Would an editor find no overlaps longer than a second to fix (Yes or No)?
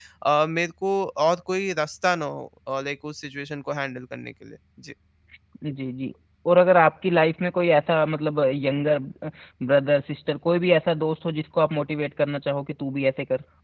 Yes